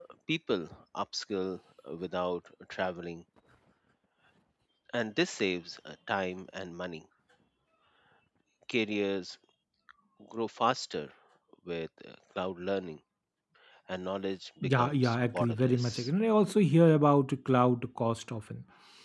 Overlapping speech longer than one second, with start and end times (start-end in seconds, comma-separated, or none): 14.6-16.1